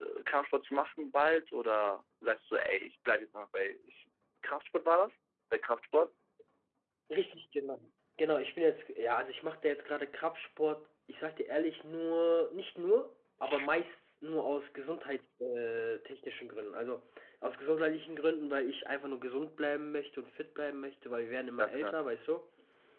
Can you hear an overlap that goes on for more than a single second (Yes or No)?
No